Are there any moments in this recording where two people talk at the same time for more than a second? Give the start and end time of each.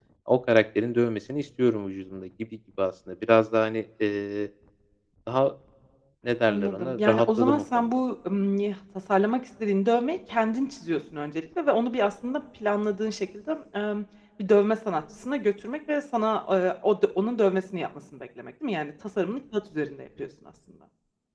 6.5-7.9

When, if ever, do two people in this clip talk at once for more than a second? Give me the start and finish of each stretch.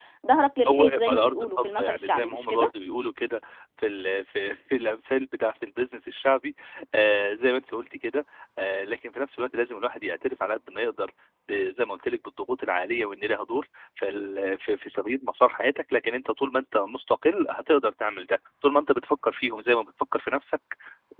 0.7-2.7

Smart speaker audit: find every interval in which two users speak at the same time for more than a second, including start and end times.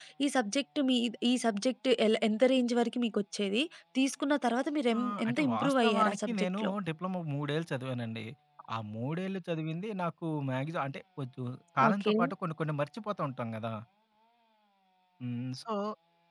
5.0-6.7

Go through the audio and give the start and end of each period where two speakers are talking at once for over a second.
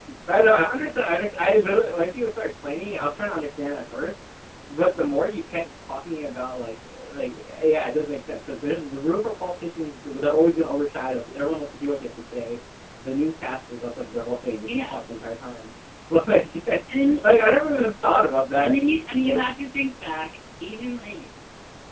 none

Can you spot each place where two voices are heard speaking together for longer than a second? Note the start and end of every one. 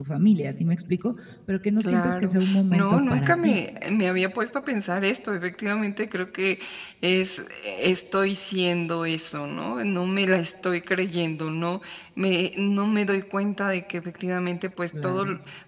1.8-3.6

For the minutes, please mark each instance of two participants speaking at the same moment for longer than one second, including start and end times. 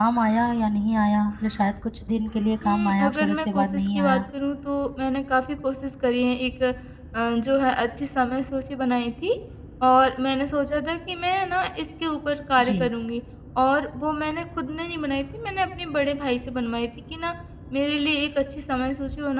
2.6-4.2

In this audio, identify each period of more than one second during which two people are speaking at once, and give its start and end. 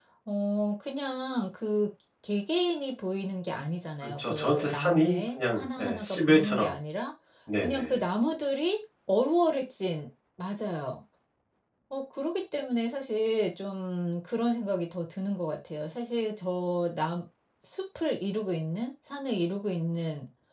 4.2-6.7

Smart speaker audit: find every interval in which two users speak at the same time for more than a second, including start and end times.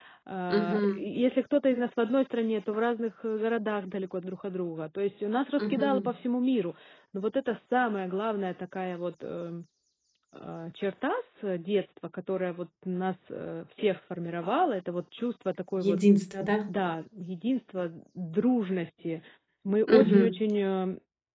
none

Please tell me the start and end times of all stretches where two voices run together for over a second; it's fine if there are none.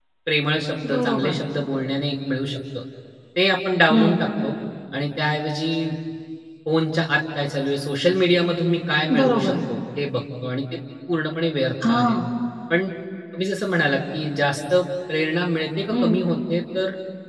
none

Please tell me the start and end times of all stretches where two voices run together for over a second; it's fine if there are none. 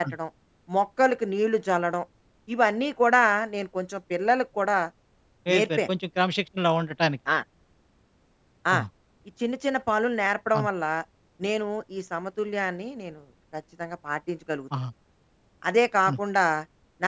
none

